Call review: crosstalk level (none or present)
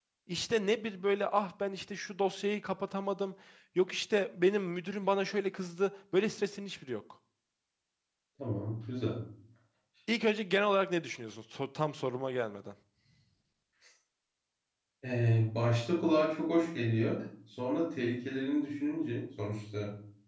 none